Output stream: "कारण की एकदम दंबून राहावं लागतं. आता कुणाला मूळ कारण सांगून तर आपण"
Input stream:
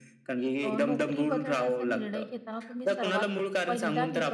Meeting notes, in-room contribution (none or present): present